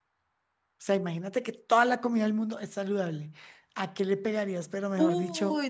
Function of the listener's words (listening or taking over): taking over